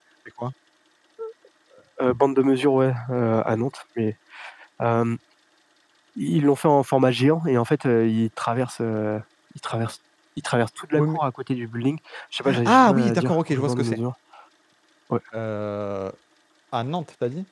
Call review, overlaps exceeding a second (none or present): present